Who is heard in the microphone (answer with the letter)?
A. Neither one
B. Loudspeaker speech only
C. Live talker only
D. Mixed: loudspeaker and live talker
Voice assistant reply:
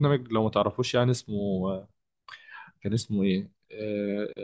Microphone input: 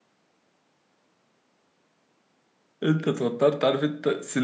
C